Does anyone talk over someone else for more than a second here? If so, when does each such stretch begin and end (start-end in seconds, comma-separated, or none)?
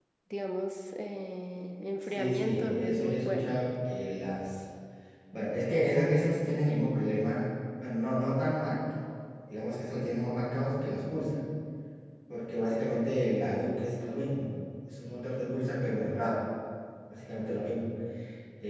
2.2-3.6